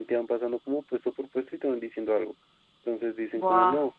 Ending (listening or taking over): listening